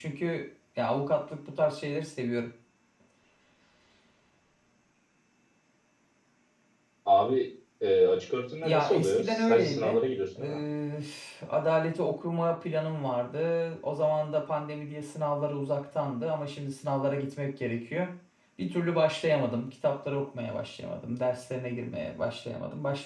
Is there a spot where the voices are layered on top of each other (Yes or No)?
Yes